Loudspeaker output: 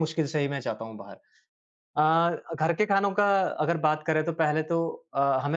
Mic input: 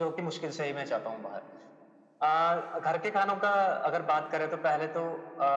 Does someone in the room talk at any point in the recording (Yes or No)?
No